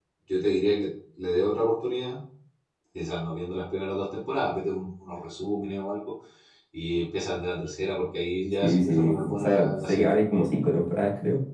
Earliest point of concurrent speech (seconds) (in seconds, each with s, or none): 8.6 s